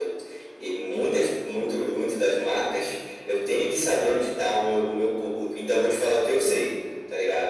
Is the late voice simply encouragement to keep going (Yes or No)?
Yes